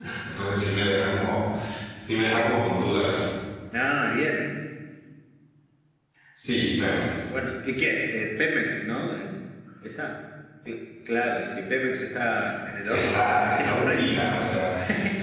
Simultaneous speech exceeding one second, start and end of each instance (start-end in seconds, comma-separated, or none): 12.9-14.2